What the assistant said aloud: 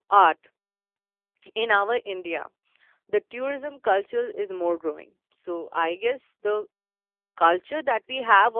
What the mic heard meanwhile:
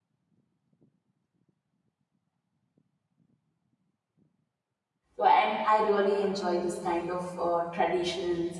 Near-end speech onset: 5.2 s

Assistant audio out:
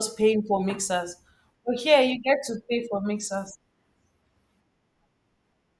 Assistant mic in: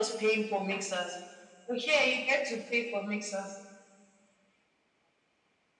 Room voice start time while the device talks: none

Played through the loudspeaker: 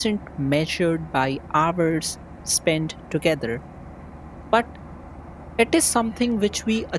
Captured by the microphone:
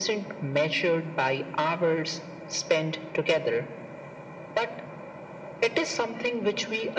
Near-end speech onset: none

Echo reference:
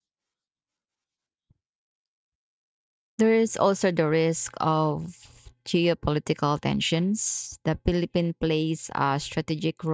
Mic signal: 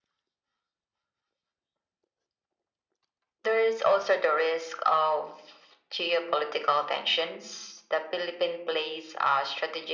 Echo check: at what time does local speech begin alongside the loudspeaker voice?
none

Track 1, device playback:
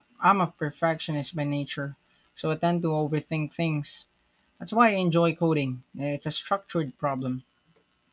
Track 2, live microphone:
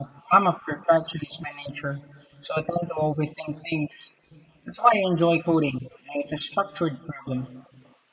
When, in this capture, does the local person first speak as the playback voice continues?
none

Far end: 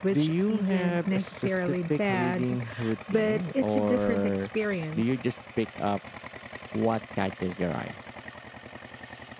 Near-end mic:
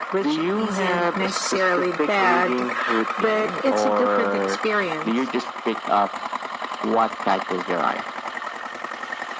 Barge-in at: none

